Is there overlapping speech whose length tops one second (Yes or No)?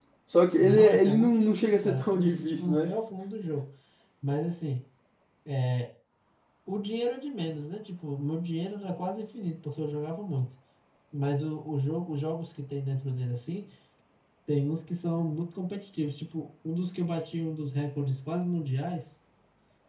Yes